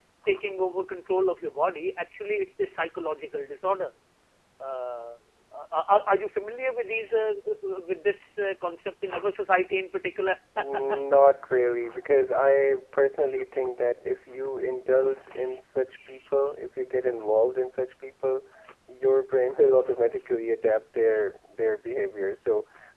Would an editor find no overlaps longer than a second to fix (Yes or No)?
Yes